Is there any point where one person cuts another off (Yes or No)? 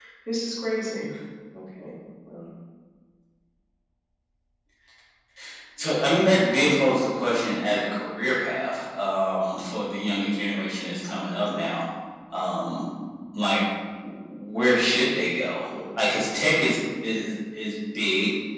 No